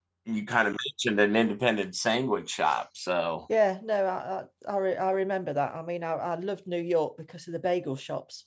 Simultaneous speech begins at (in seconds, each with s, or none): none